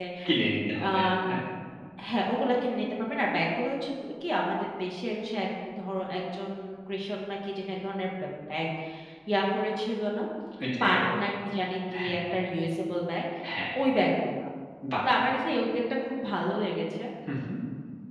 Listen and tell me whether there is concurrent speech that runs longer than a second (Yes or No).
No